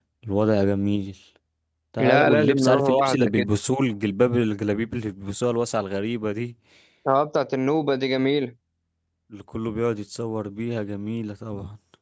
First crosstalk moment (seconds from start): 2.0 s

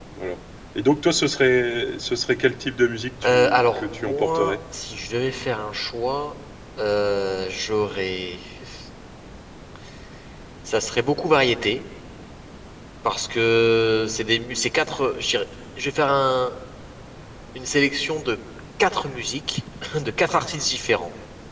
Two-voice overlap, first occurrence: 3.2 s

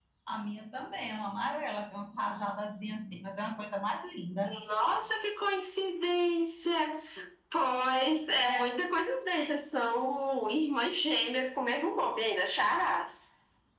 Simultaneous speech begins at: none

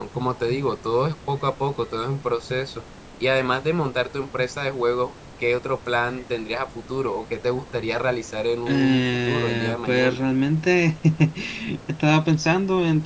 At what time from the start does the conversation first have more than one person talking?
8.7 s

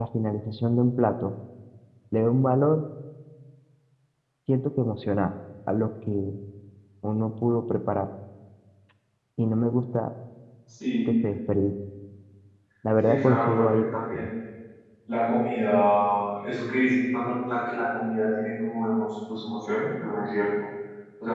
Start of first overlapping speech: 13.1 s

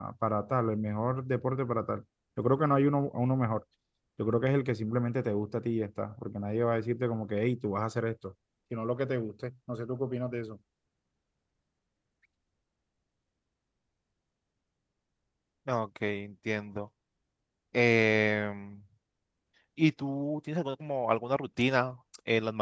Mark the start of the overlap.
none

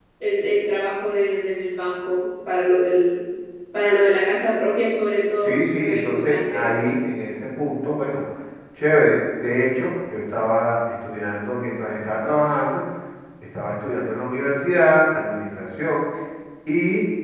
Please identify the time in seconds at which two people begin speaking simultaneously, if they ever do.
5.4 s

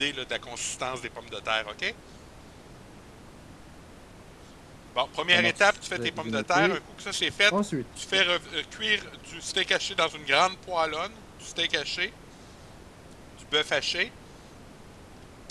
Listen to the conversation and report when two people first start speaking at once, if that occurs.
5.3 s

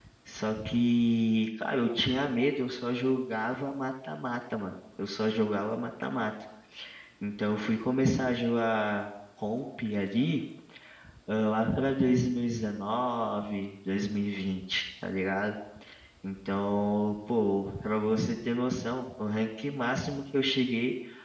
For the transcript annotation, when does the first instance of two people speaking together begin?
none

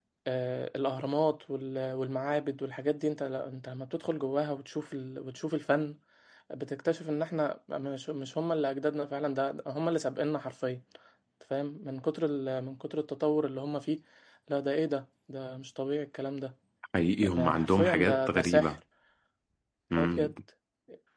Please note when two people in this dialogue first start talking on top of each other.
17.3 s

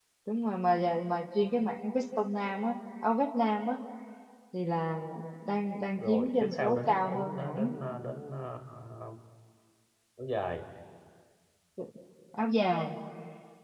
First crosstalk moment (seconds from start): 6.0 s

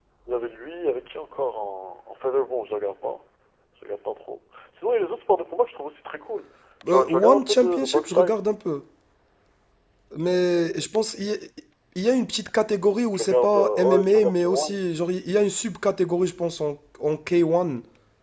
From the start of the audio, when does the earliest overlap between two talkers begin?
6.9 s

